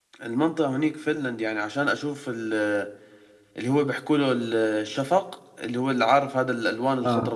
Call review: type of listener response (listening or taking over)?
taking over